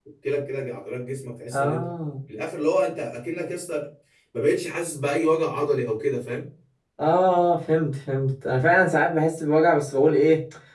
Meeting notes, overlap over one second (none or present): none